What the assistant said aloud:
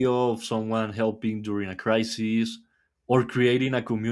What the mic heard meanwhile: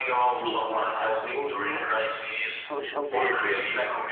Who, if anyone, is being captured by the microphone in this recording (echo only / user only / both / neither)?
both